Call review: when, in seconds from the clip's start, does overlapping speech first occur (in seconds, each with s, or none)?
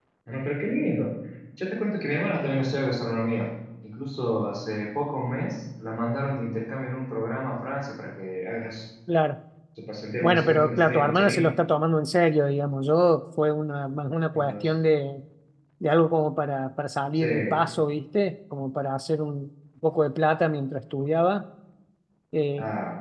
10.2 s